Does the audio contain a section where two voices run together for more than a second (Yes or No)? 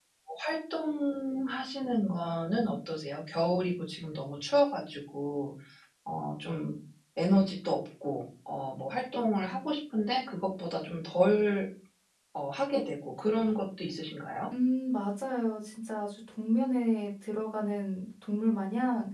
No